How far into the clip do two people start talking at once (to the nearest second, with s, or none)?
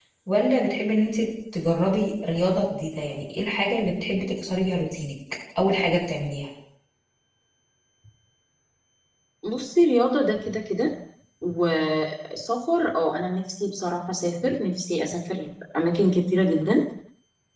none